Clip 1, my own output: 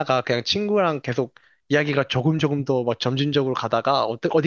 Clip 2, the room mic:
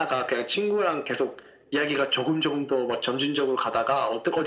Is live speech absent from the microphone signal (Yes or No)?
Yes